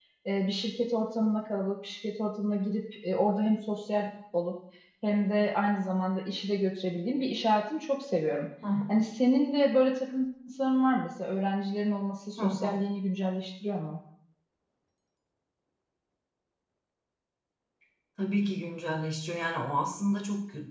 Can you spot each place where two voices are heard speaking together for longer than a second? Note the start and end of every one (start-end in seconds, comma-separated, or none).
none